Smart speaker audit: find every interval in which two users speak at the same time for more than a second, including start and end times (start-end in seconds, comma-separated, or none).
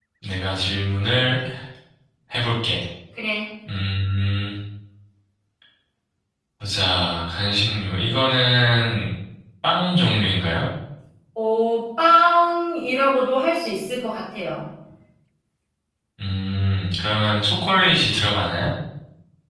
none